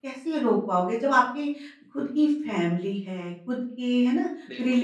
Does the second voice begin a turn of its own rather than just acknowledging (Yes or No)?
No